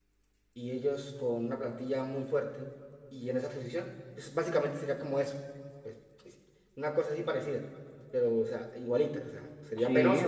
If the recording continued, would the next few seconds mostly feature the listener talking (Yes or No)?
Yes